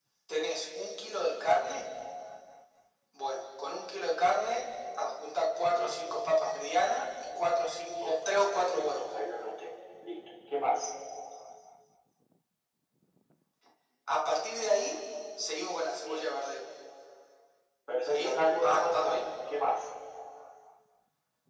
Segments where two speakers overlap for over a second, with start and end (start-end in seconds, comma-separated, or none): 18.0-19.3